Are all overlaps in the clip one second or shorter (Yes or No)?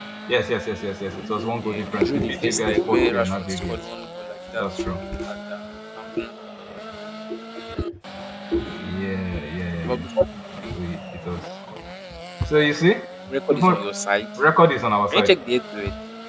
No